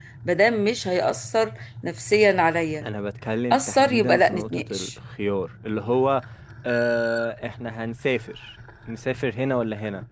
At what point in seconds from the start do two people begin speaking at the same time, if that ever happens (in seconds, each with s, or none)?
3.5 s